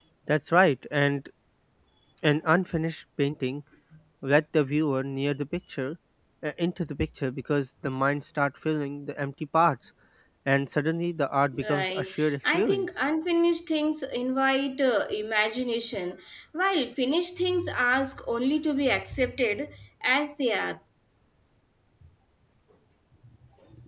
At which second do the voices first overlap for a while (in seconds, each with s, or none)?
11.5 s